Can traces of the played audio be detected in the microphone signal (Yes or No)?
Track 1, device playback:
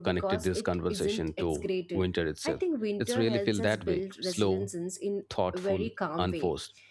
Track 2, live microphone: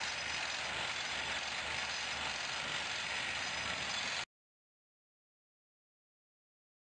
No